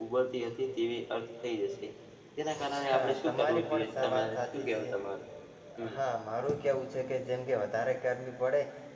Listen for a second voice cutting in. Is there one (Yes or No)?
Yes